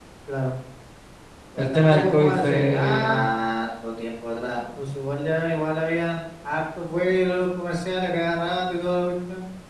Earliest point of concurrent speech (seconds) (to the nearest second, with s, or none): 2 s